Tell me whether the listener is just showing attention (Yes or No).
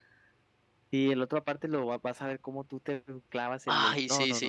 No